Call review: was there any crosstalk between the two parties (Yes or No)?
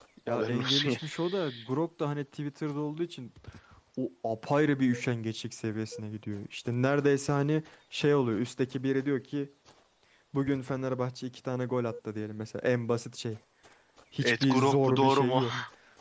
Yes